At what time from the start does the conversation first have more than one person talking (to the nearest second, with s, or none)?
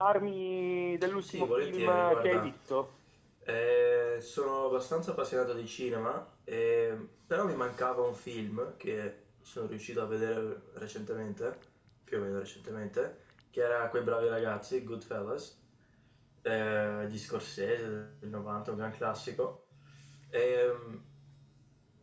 1 s